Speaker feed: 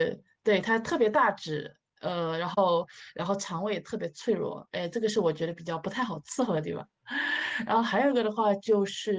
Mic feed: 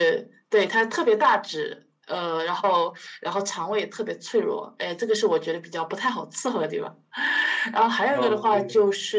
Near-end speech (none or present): present